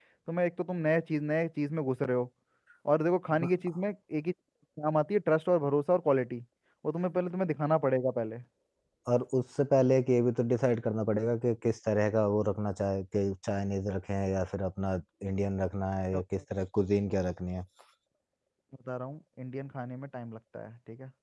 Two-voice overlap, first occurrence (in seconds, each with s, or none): none